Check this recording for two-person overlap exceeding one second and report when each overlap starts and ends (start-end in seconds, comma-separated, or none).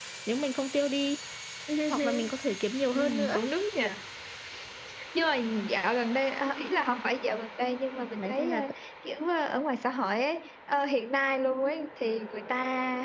none